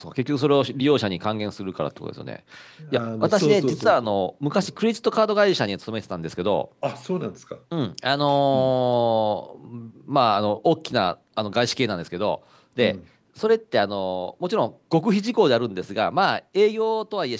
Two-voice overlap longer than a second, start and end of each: 2.9-4.1

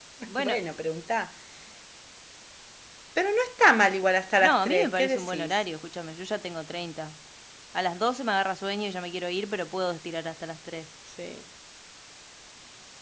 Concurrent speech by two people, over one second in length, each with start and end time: 4.4-5.6

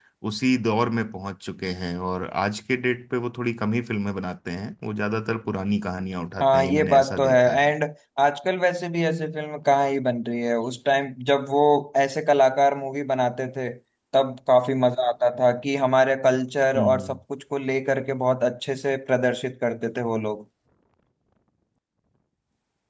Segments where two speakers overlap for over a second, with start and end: 6.4-7.7

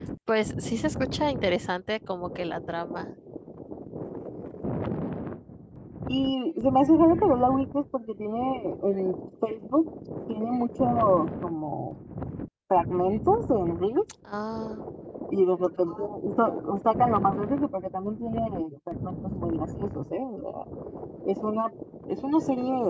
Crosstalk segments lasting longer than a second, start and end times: none

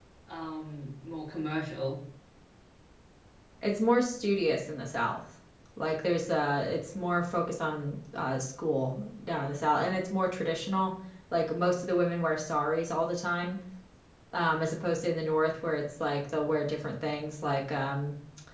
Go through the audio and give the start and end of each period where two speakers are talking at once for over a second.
none

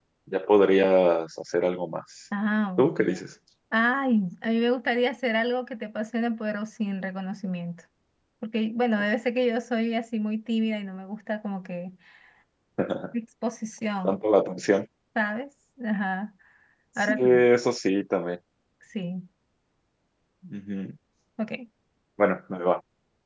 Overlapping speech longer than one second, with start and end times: none

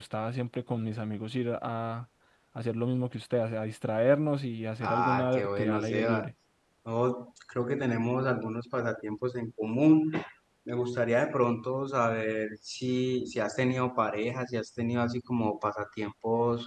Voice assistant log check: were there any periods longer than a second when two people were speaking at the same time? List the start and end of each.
4.8-6.3

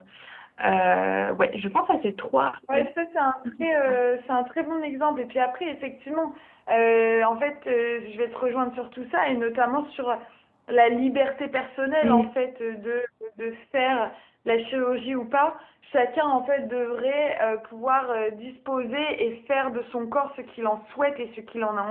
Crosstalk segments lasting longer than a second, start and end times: none

